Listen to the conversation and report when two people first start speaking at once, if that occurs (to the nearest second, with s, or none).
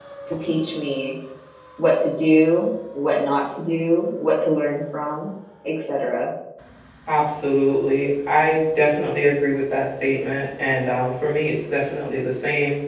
none